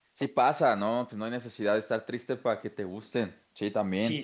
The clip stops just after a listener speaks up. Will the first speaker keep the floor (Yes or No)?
Yes